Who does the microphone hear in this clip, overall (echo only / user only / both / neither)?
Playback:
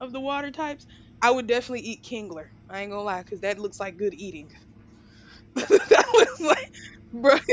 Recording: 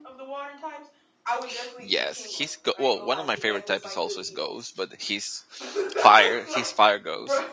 both